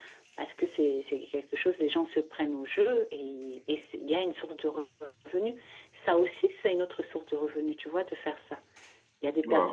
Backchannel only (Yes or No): Yes